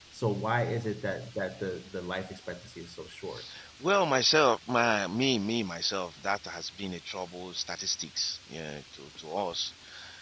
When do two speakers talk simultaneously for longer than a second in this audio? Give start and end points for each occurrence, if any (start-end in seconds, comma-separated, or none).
none